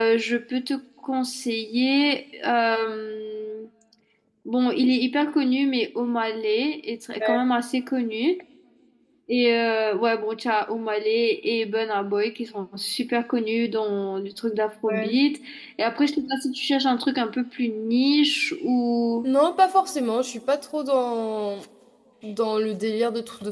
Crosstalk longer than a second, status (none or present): none